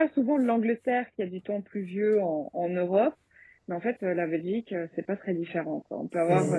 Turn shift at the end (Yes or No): No